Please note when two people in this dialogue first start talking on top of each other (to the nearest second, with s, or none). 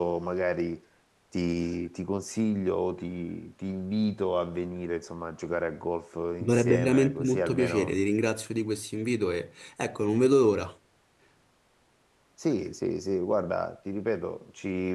6 s